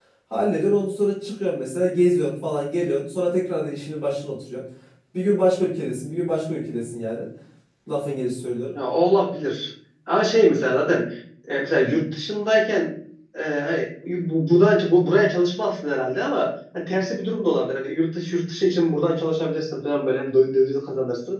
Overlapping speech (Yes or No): No